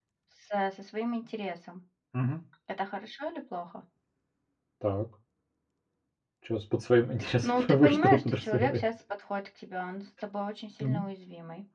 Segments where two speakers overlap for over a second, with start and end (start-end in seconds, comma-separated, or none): 7.4-8.8